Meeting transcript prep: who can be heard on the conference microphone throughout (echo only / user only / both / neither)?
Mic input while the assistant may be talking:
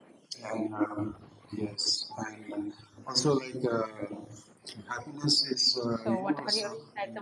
both